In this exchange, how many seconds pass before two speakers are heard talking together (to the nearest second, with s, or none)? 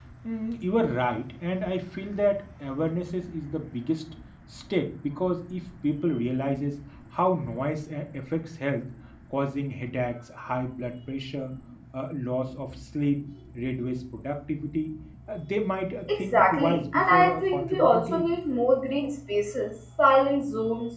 16 s